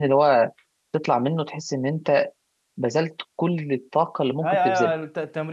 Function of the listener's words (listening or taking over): taking over